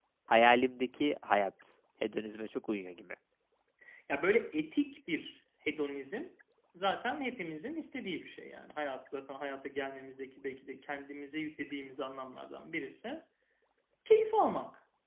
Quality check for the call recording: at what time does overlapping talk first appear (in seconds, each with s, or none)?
none